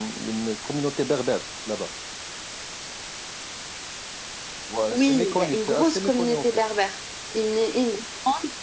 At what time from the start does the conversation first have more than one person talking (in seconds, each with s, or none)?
4.9 s